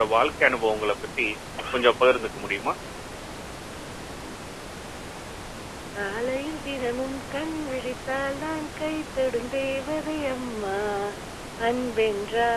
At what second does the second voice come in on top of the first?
none

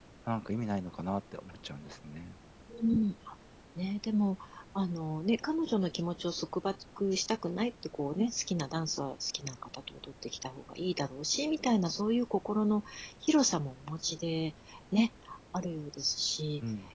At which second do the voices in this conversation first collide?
none

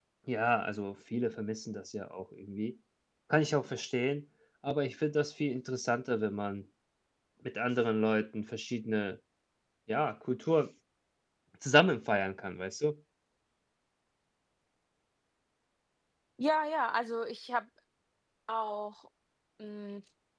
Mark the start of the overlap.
none

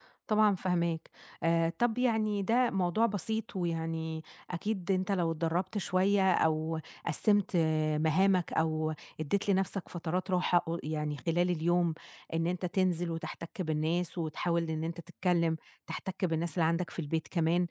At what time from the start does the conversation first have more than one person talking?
none

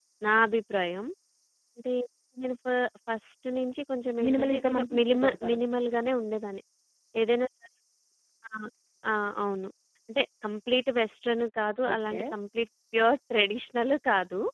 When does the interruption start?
4.2 s

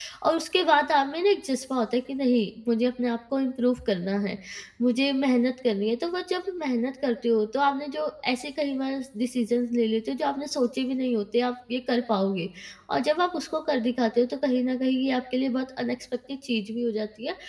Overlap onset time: none

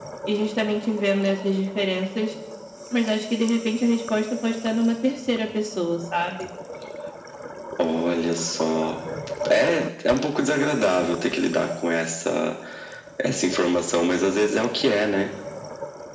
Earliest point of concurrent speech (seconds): none

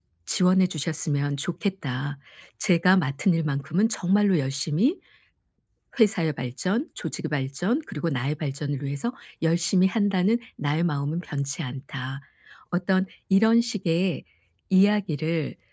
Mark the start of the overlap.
none

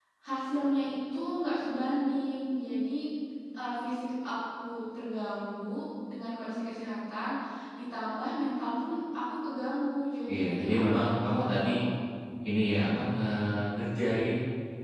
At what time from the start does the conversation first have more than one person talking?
10.3 s

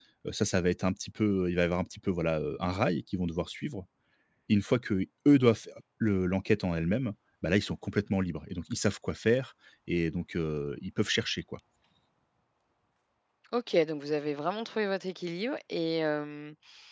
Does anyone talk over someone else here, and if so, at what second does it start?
none

